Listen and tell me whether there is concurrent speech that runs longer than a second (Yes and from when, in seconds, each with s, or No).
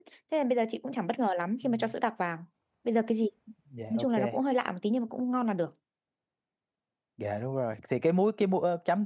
No